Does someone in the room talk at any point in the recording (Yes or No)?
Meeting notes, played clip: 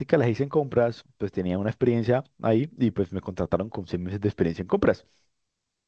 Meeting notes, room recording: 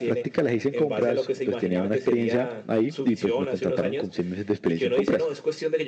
Yes